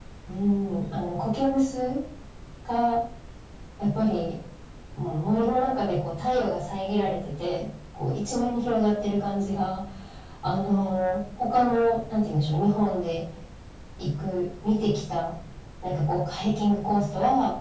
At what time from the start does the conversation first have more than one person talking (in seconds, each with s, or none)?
none